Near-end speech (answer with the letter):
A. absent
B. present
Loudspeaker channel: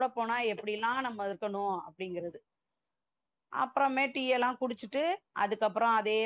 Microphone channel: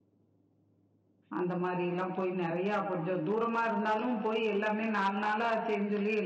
B